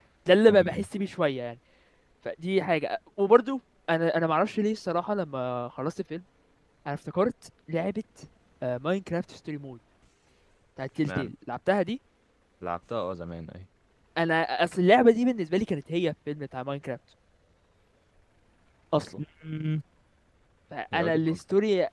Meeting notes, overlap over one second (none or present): none